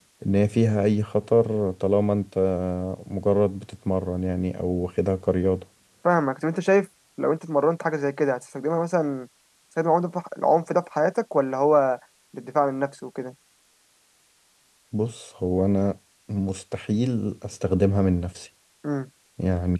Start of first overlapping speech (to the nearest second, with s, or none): none